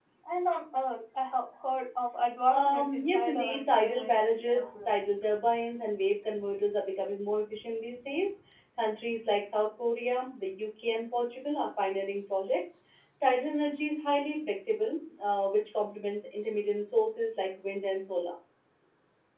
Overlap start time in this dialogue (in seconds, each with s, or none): 2.5 s